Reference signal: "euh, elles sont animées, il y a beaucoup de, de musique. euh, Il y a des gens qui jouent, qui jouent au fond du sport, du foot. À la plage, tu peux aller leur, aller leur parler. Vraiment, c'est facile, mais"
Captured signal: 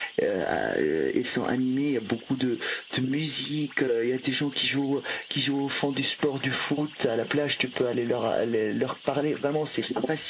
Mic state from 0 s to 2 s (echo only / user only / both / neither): echo only